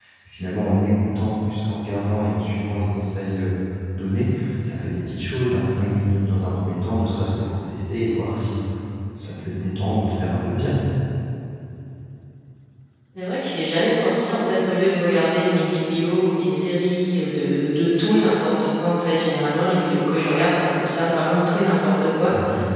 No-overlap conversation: Yes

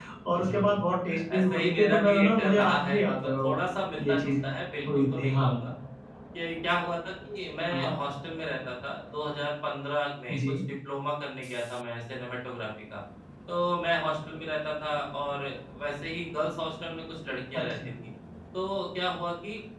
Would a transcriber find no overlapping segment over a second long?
No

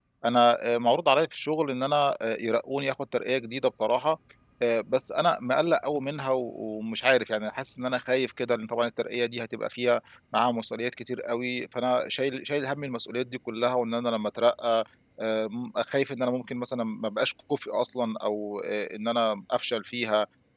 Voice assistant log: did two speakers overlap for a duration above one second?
No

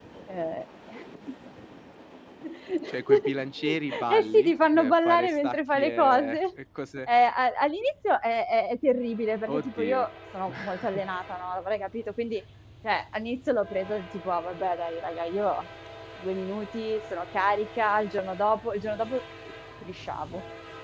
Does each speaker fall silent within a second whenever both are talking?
No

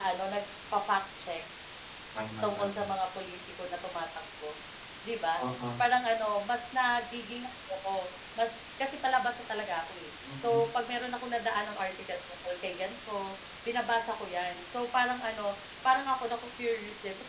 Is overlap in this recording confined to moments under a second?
Yes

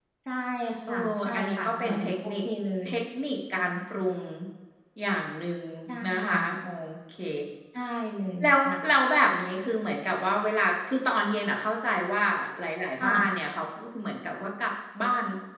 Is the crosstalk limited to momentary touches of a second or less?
No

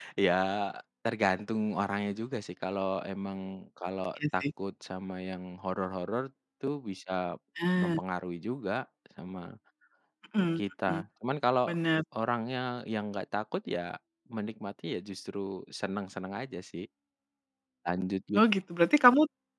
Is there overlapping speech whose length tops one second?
No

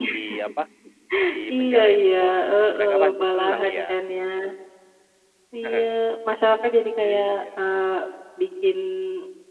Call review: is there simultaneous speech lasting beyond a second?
Yes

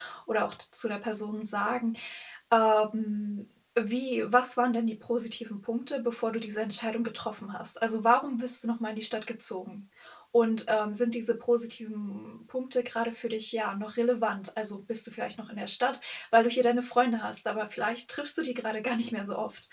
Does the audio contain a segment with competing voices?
No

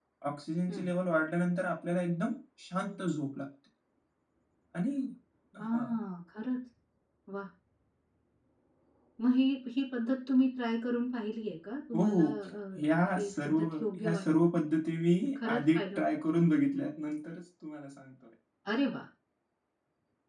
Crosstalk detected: Yes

